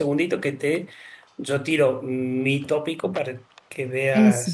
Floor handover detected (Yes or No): No